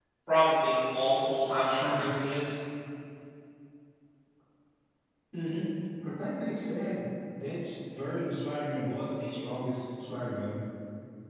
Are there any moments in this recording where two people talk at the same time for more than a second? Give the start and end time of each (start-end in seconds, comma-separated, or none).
none